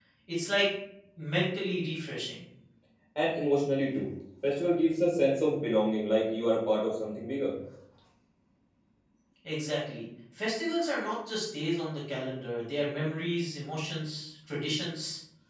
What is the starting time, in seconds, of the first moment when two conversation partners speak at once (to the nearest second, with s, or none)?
none